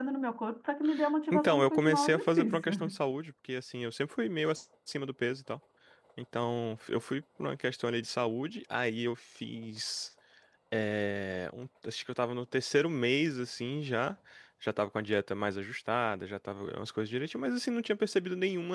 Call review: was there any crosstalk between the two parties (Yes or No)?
Yes